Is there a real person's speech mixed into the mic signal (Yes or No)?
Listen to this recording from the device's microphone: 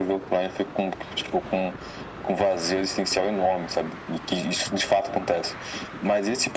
No